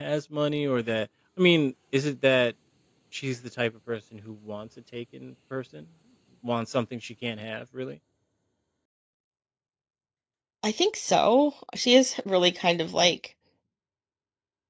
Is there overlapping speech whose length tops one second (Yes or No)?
No